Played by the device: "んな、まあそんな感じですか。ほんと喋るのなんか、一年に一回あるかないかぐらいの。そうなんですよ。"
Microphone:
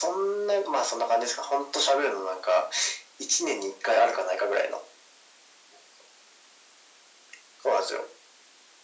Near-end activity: none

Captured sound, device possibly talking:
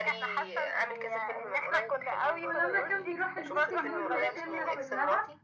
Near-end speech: present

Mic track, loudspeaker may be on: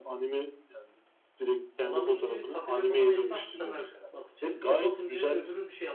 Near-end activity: present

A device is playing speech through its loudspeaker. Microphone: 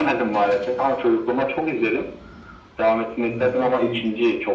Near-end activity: present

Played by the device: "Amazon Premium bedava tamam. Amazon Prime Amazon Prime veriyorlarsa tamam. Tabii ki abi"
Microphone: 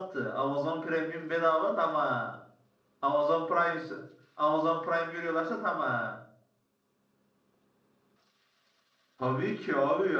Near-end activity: none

